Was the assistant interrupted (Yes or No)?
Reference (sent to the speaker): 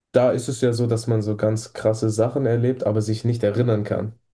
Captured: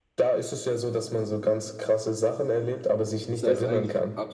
Yes